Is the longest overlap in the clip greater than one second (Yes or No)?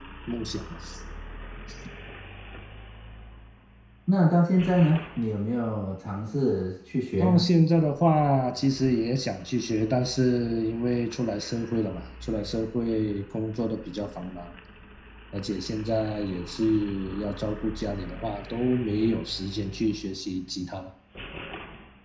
No